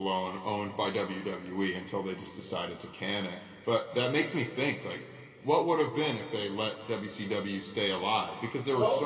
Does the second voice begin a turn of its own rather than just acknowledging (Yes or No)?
No